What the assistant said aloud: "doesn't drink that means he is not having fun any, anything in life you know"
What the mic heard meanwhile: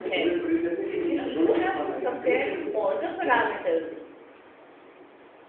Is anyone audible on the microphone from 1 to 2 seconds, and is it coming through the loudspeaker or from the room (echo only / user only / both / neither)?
both